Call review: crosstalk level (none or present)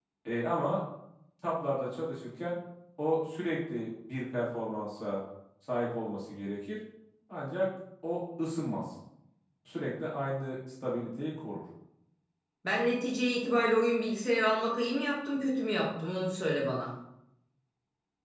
none